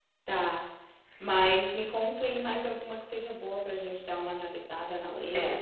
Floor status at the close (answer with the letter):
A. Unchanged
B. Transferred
B